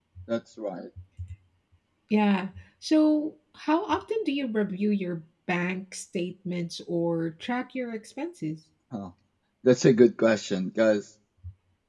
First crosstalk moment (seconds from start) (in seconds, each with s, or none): none